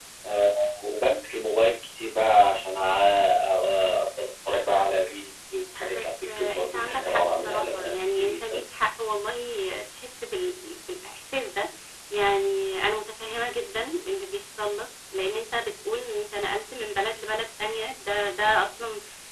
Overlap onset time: 5.8 s

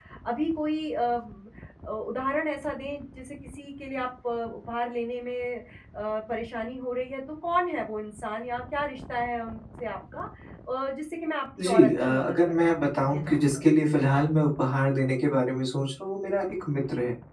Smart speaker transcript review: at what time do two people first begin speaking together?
11.6 s

